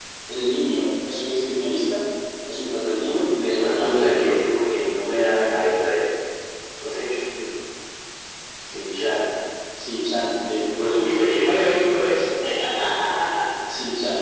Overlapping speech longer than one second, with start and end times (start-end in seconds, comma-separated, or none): 3.1-4.4